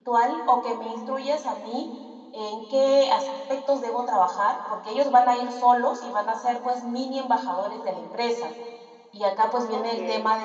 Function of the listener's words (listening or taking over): listening